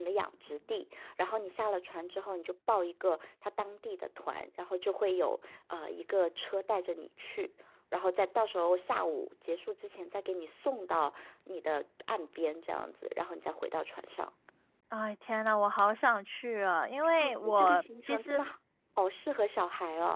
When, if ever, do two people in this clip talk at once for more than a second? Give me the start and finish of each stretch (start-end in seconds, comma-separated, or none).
17.2-18.4